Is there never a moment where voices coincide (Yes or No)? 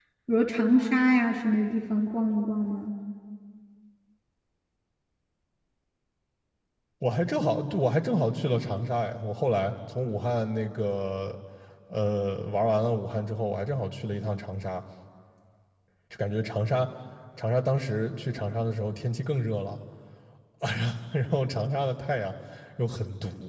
Yes